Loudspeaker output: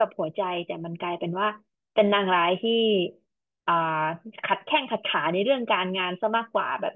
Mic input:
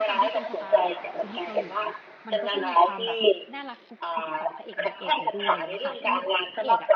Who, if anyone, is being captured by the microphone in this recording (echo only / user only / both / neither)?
both